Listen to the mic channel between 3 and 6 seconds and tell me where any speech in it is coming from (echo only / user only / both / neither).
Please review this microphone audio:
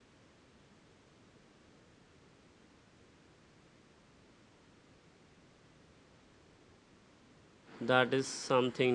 neither